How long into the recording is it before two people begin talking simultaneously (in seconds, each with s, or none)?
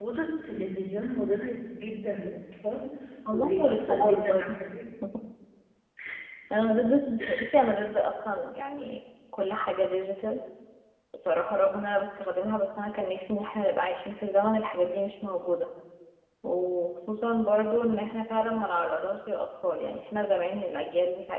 3.3 s